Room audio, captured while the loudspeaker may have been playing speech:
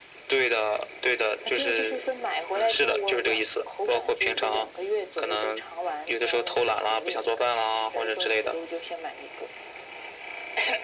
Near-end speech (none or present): none